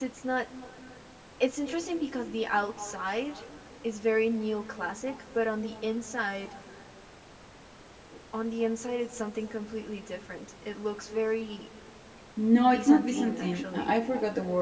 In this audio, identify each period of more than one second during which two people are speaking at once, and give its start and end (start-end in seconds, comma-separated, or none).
12.7-13.9